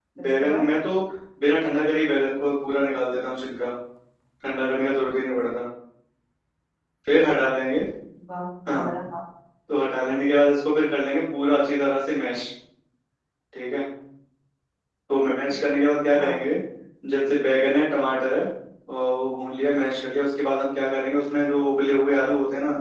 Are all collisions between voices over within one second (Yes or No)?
Yes